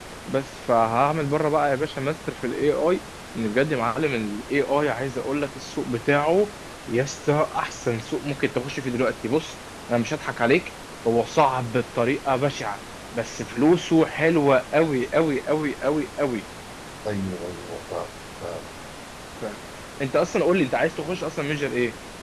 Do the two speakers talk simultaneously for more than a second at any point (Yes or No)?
No